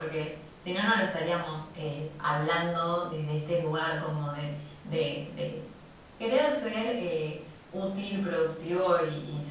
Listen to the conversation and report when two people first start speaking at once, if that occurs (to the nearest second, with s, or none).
none